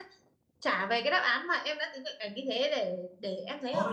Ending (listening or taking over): taking over